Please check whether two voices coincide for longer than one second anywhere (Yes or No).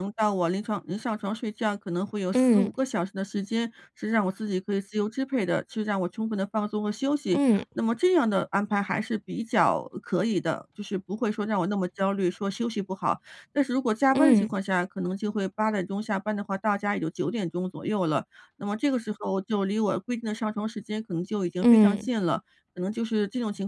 No